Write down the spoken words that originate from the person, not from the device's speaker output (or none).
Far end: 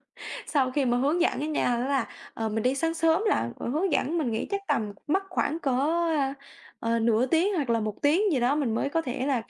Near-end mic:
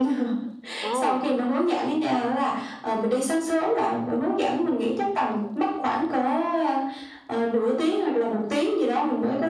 ồ,